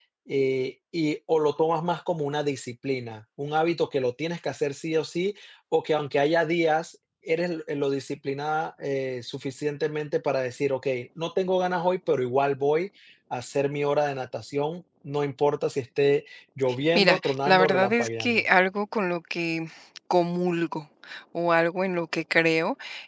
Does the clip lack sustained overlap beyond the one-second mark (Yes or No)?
No